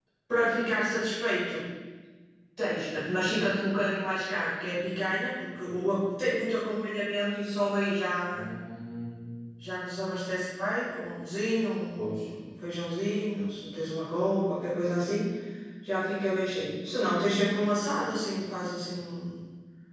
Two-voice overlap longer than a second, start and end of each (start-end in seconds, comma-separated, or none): none